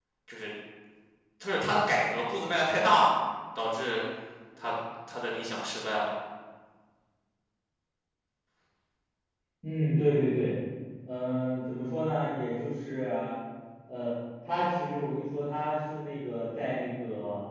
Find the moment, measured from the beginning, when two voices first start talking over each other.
none

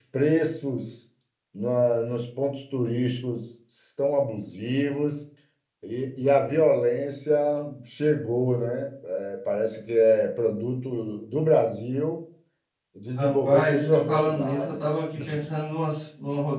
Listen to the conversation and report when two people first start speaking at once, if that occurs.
13.2 s

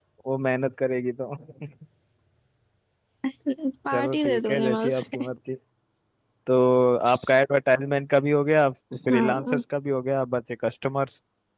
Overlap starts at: 3.9 s

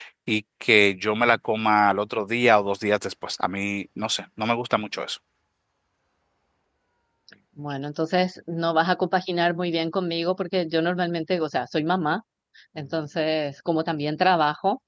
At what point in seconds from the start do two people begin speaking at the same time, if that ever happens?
none

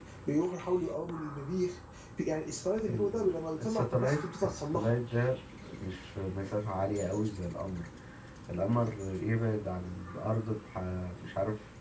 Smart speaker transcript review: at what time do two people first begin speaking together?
2.9 s

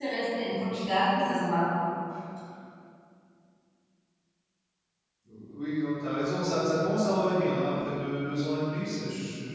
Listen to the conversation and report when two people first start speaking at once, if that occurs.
none

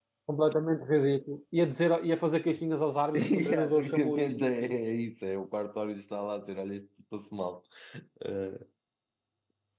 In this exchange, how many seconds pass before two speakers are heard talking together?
3.1 s

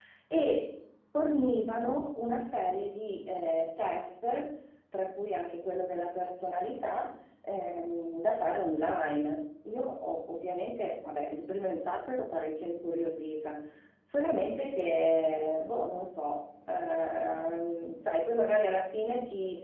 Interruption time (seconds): none

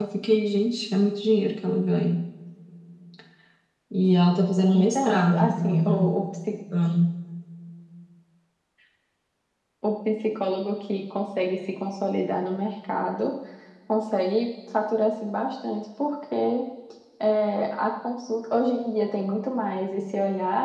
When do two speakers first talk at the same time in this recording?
4.7 s

